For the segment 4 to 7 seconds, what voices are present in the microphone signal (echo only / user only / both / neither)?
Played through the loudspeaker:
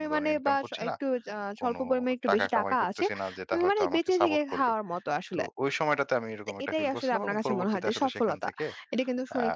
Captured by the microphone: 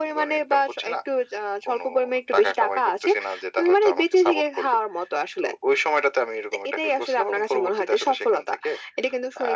echo only